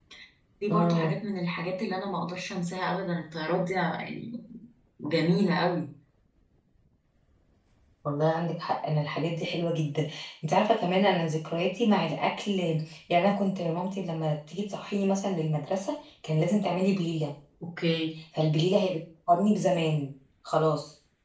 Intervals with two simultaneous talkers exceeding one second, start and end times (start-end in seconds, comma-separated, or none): none